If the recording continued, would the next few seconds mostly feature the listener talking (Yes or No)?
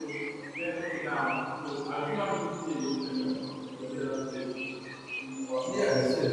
Yes